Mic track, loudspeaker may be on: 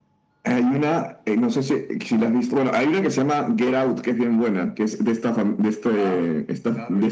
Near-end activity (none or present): present